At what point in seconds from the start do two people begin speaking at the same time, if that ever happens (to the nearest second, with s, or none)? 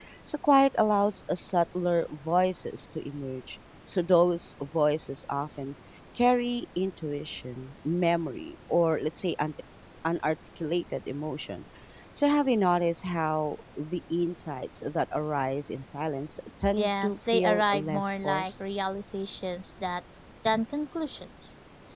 17 s